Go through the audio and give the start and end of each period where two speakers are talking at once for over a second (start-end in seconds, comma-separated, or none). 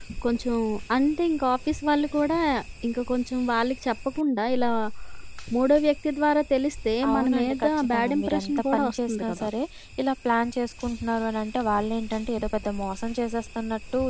7.1-9.4